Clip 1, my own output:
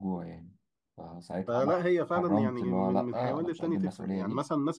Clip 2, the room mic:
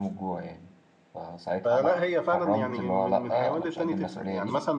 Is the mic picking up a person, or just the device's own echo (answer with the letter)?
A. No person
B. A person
A